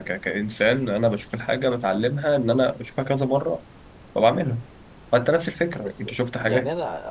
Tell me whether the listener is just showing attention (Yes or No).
No